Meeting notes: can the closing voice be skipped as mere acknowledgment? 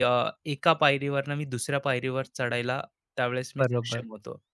No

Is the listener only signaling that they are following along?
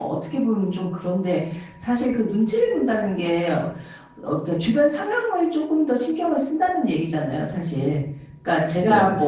Yes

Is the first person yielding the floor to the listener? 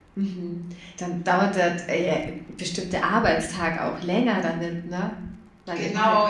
Yes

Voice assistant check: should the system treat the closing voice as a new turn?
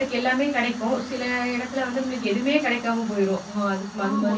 Yes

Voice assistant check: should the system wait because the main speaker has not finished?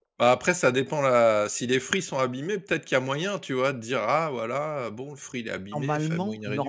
No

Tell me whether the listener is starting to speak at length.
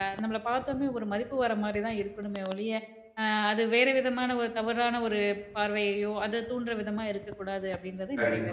Yes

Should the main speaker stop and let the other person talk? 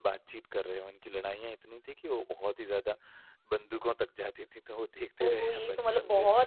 Yes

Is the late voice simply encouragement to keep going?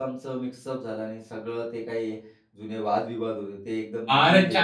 No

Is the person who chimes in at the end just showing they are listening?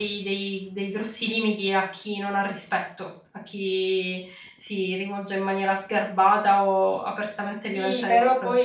No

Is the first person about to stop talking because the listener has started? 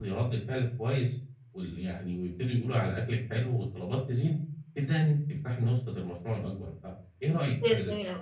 Yes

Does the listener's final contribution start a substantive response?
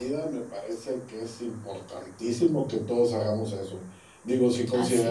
No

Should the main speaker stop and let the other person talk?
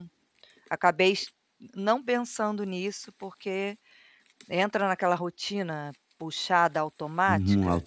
Yes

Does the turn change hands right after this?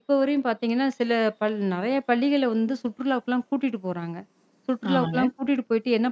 No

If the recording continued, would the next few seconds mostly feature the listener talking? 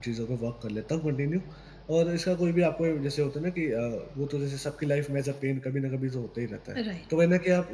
No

